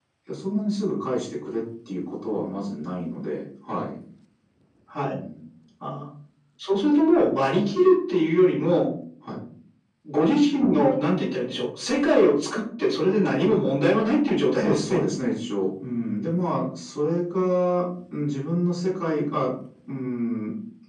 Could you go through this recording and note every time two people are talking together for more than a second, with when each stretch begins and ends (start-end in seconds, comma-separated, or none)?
none